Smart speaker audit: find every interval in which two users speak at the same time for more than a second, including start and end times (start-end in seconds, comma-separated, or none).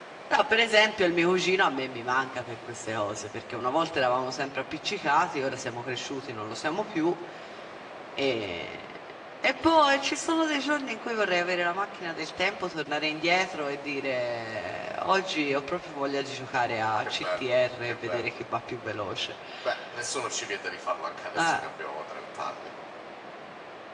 17.0-18.3